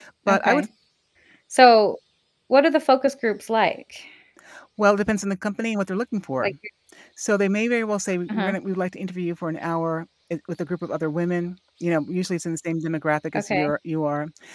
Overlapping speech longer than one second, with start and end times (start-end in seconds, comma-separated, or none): none